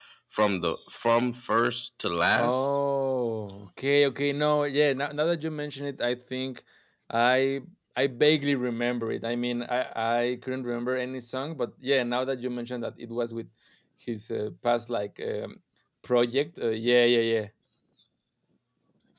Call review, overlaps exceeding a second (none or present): none